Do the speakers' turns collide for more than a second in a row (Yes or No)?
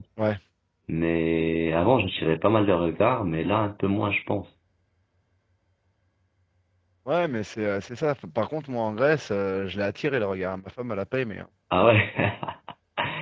No